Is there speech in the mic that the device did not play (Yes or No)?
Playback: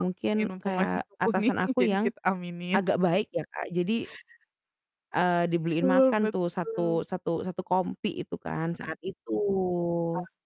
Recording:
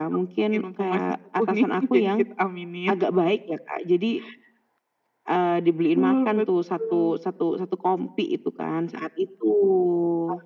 No